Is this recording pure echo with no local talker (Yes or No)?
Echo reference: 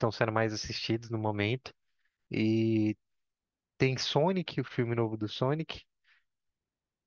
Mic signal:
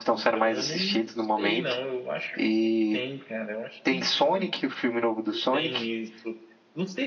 No